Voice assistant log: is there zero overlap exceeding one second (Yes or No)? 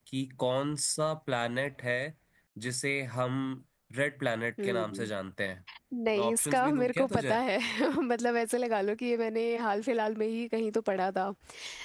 No